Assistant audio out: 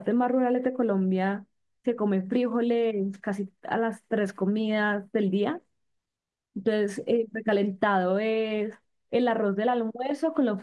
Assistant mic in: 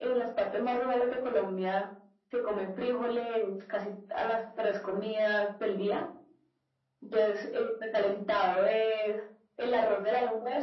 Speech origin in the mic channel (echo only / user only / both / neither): echo only